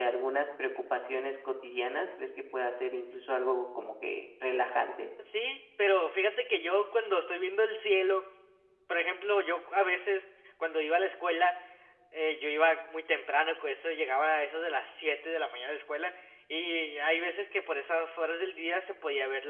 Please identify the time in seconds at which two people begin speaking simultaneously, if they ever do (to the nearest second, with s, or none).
none